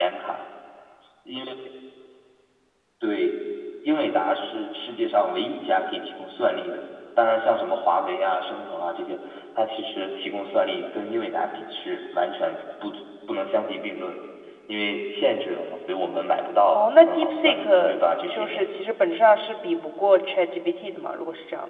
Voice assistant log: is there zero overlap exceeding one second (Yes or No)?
No